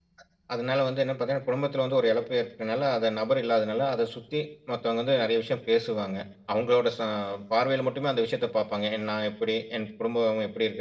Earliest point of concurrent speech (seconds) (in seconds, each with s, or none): none